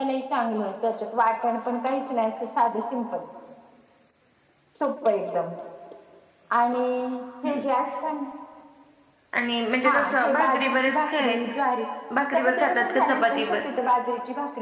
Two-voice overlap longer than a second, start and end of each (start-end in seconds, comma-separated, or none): 9.8-11.5, 12.3-13.6